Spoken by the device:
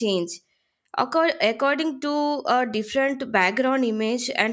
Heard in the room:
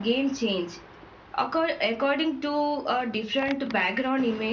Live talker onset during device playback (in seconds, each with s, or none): none